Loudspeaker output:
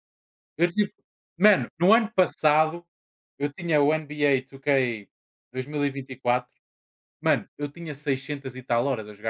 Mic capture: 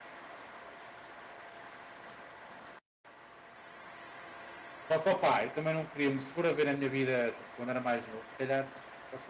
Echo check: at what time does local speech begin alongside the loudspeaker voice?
4.9 s

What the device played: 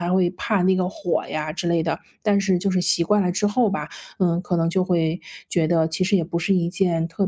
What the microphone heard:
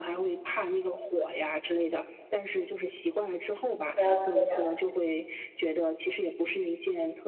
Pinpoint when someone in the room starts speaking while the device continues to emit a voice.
3.8 s

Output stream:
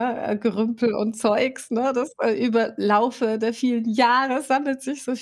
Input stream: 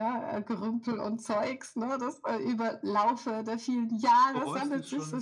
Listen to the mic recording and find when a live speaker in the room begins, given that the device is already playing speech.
4.3 s

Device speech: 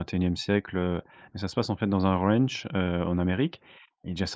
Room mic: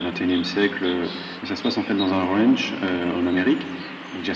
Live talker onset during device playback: none

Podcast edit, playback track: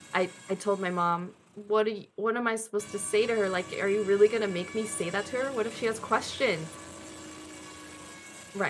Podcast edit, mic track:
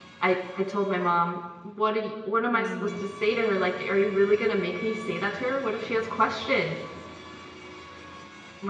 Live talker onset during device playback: 2.5 s

